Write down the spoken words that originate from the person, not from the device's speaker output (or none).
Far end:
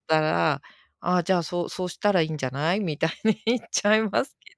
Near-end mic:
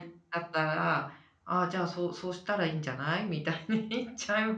none